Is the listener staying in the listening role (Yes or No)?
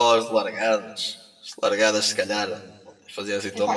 No